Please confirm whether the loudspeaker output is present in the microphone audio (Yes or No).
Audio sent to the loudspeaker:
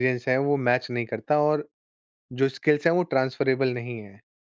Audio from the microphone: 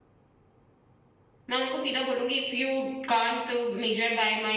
No